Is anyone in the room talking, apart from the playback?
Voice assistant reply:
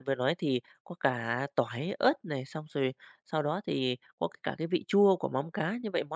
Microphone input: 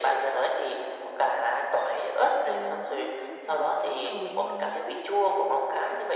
Yes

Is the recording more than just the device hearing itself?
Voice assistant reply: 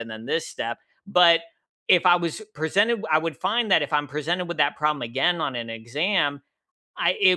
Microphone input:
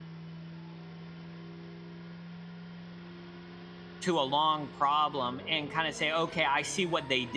Yes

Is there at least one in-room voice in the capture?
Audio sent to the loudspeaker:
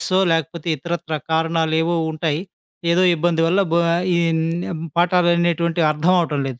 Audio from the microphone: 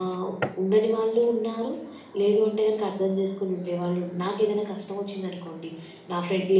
Yes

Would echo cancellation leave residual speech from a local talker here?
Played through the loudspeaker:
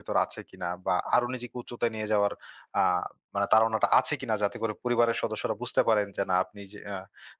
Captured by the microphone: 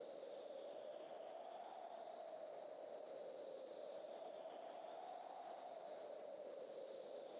No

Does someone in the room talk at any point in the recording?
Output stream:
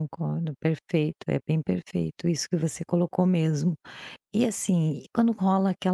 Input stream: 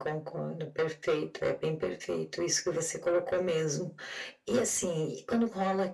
No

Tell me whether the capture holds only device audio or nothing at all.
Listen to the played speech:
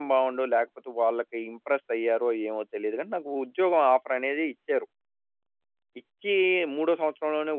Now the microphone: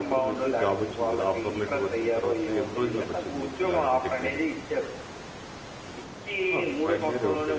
No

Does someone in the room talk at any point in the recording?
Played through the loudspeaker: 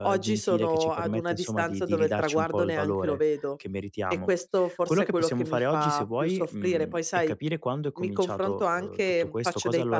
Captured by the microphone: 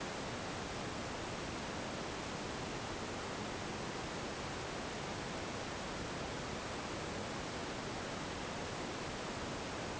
No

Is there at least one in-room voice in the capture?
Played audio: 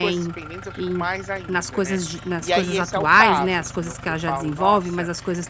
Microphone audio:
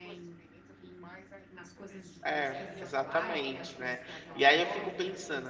Yes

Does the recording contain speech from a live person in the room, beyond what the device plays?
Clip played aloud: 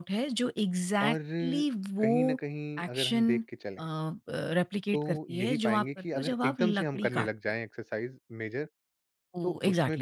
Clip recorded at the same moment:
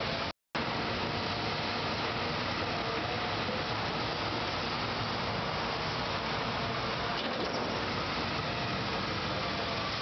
No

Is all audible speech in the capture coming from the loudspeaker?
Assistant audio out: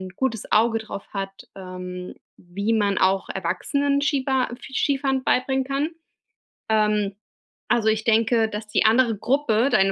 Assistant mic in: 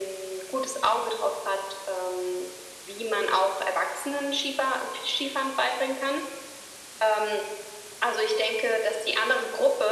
Yes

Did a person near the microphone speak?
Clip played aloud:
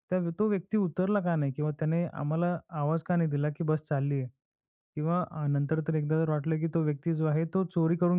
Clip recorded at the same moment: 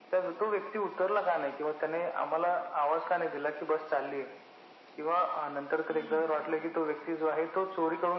Yes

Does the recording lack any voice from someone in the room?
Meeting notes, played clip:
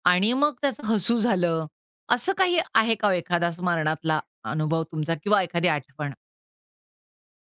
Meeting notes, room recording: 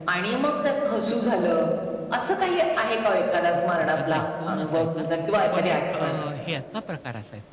No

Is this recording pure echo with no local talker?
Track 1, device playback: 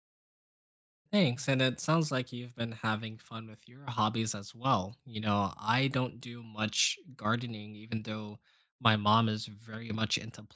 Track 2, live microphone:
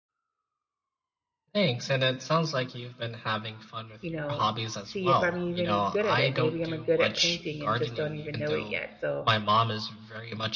No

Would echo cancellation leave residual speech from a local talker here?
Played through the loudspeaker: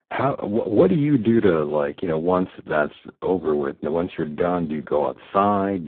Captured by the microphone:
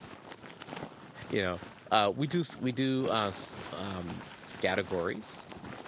Yes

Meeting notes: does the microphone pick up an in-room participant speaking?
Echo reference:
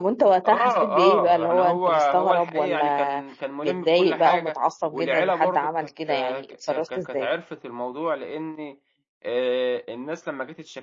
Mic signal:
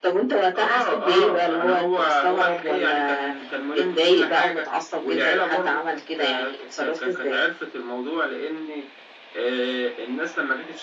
No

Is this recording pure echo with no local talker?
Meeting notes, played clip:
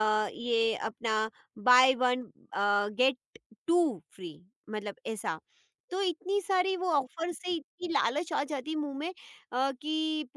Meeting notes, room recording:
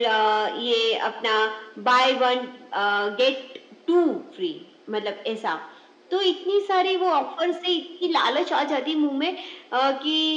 Yes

